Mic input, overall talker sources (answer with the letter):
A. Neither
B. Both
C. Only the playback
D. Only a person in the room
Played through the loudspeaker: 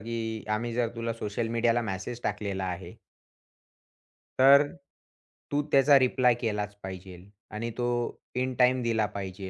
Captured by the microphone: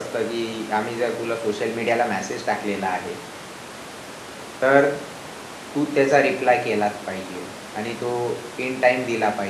C